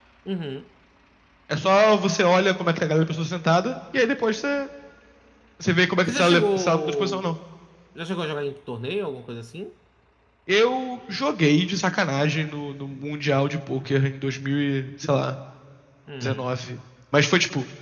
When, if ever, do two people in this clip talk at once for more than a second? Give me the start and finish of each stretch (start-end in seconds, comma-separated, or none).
6.1-7.4